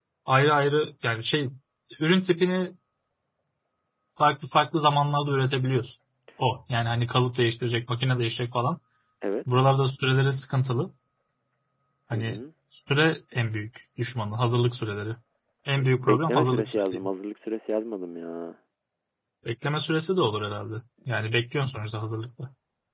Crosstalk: present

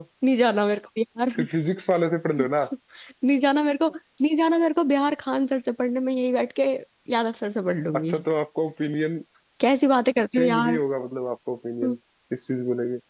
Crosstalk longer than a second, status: none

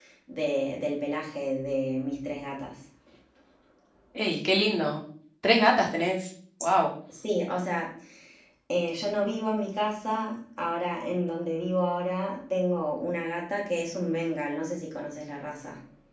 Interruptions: none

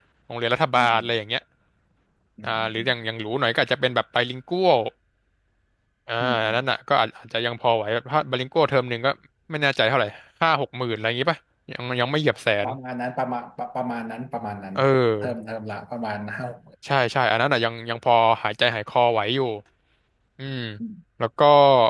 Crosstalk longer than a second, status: none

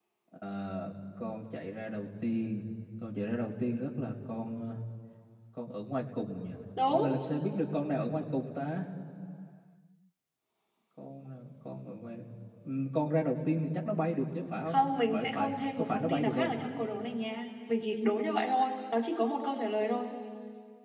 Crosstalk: present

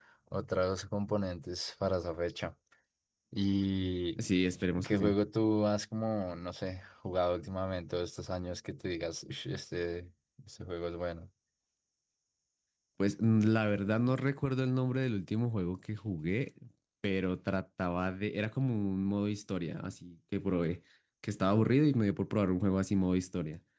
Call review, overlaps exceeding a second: none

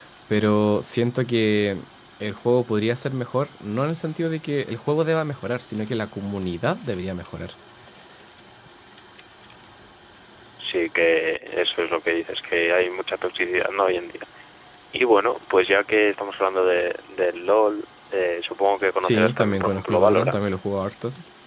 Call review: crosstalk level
present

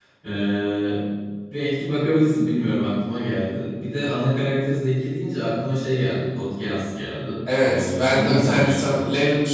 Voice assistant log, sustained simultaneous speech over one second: present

